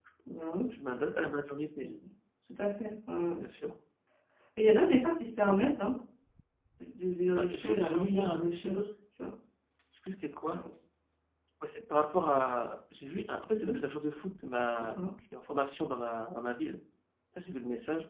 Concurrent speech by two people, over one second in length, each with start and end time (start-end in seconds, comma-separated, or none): 7.4-8.8